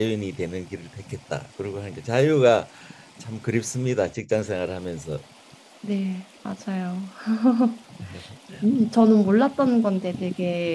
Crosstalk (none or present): none